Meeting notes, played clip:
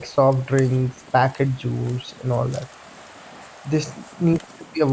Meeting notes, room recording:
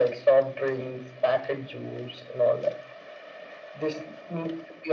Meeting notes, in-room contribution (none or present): none